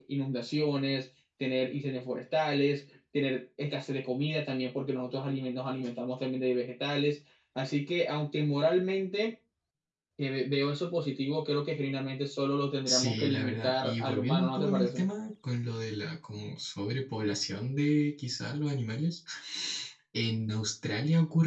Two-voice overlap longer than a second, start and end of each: 12.9-15.1

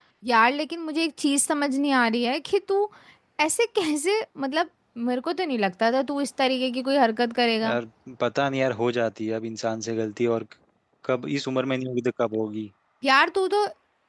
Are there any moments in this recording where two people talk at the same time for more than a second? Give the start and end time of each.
none

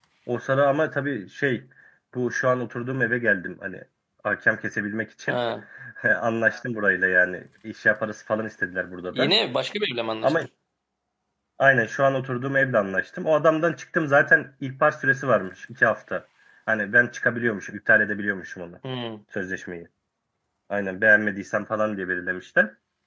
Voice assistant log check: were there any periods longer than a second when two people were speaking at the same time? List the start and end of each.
none

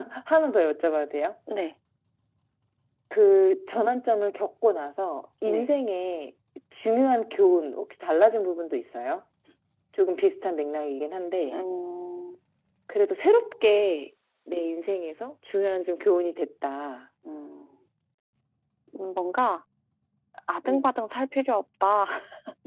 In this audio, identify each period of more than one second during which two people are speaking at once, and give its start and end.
none

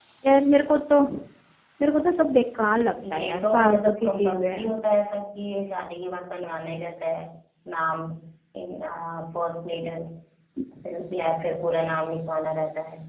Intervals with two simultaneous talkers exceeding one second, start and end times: 3.1-4.7

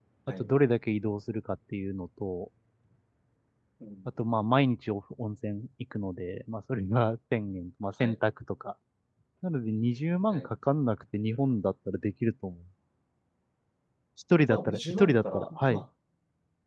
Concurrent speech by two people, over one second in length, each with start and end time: 14.5-15.8

